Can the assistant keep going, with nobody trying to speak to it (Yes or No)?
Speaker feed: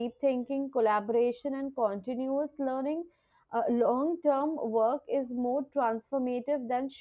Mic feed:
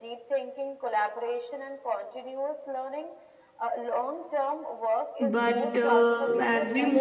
No